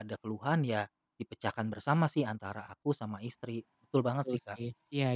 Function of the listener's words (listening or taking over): taking over